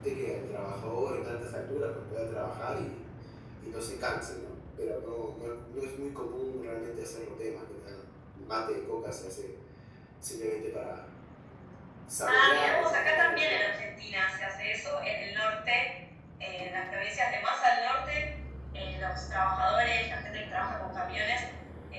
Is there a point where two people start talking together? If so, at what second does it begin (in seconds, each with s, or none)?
12.2 s